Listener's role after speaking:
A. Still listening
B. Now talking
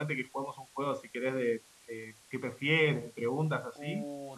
B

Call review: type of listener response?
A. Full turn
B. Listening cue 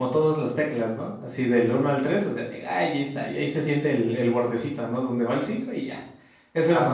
A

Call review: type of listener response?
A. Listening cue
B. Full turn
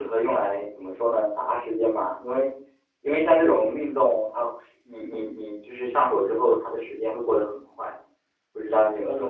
B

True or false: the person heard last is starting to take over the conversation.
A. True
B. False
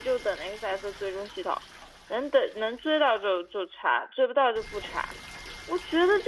B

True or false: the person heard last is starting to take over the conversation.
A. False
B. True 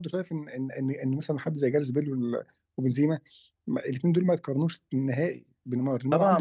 B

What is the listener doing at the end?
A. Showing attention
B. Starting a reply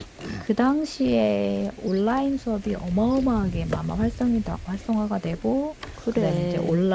A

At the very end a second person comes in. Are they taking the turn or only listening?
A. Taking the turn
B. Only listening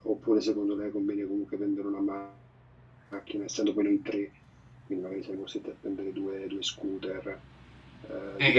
B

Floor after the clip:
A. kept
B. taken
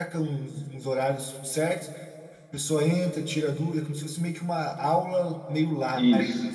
B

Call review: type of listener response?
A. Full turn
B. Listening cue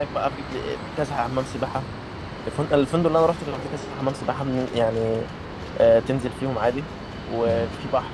B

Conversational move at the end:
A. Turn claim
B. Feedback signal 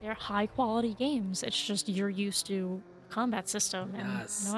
A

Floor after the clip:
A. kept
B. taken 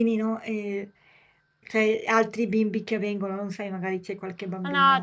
B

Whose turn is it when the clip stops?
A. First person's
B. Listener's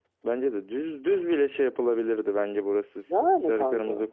A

